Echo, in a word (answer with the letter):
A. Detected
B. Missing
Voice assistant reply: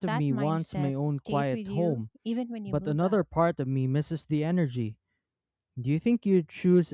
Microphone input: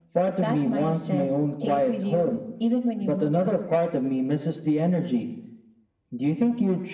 A